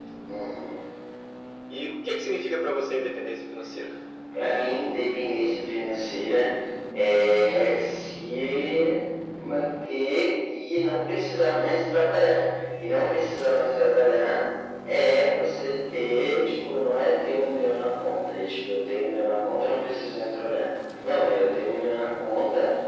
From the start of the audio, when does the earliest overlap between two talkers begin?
none

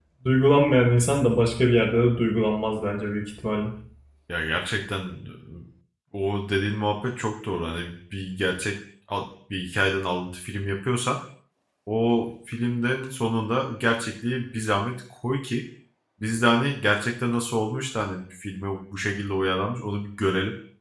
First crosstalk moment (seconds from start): none

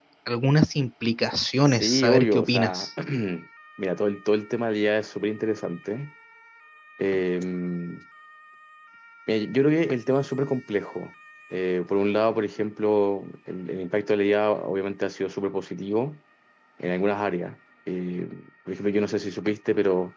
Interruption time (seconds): 2 s

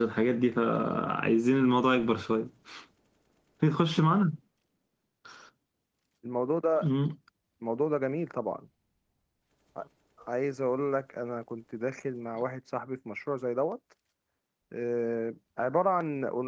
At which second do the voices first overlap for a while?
none

